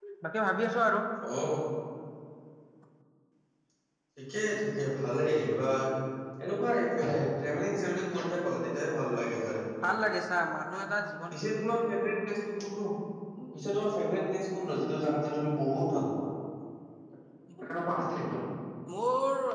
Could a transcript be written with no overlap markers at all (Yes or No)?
Yes